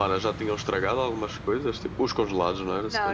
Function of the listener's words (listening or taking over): taking over